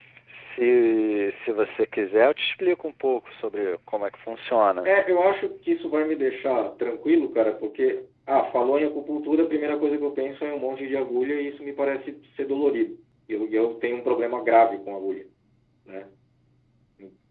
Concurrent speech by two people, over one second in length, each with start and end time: none

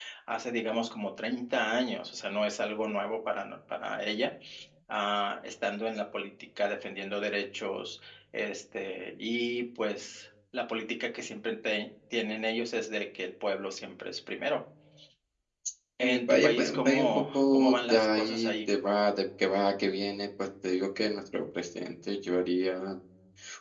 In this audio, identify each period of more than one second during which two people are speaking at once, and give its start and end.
16.0-18.5

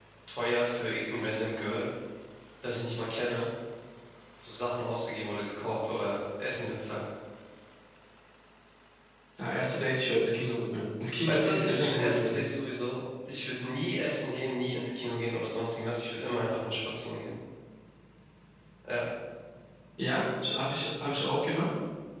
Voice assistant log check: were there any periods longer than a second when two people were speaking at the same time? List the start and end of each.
11.3-12.5

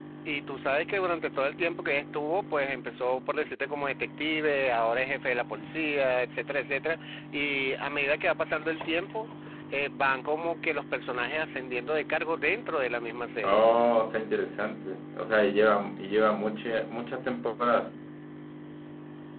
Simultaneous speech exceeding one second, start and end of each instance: none

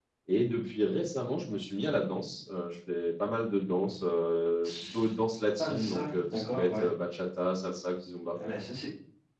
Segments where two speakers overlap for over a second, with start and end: 5.6-6.9

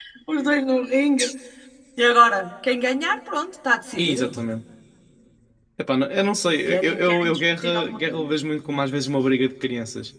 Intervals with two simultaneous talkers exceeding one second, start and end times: 6.7-8.2

